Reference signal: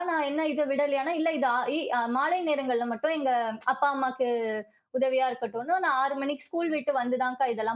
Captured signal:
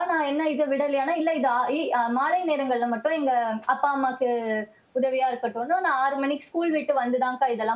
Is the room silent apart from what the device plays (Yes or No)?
Yes